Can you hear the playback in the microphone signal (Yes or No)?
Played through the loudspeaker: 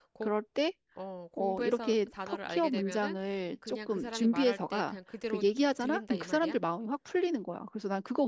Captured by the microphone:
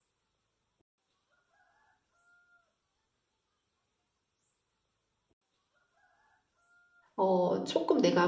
No